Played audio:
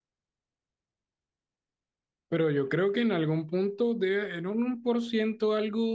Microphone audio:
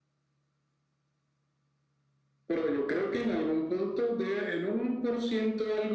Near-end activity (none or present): none